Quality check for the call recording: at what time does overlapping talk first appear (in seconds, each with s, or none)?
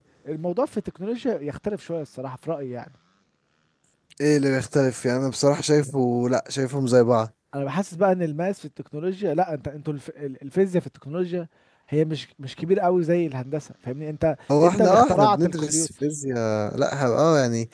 14.5 s